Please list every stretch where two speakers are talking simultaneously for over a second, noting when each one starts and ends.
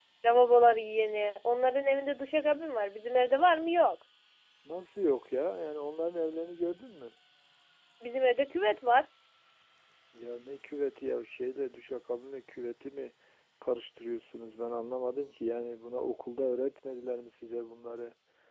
none

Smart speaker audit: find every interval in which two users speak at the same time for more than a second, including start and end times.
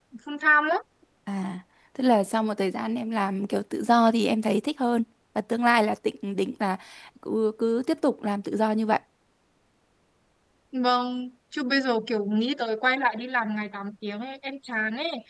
none

